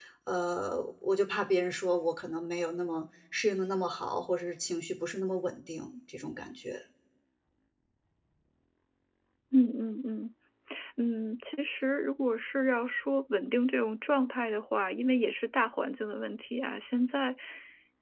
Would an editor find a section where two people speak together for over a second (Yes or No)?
No